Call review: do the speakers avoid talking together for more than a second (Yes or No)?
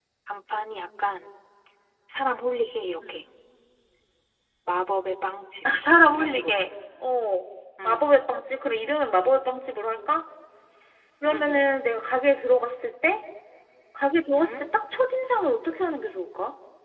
Yes